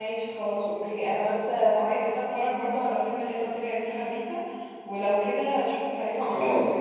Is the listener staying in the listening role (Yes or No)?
No